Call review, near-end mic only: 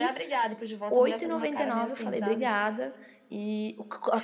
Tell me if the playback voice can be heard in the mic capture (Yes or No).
Yes